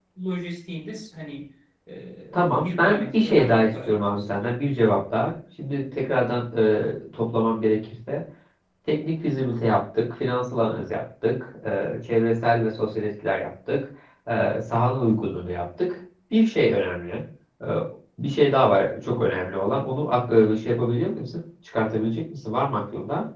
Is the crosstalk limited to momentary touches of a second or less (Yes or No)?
No